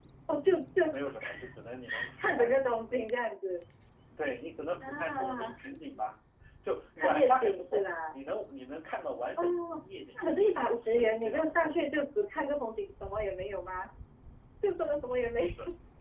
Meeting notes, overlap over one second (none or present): present